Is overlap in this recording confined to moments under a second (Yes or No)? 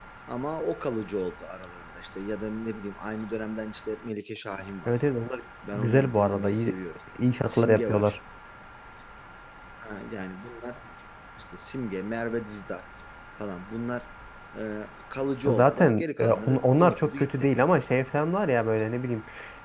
No